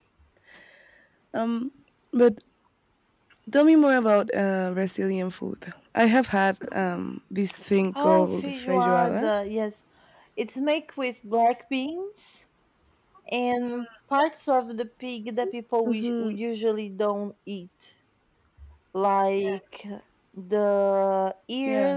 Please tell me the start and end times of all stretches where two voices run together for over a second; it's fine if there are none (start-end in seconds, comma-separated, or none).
8.0-9.3